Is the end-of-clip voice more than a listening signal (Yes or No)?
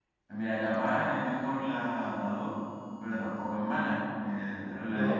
Yes